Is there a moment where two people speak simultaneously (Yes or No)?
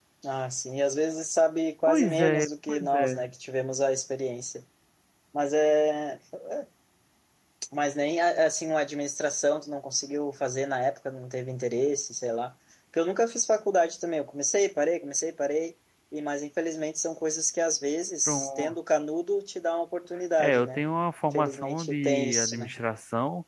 Yes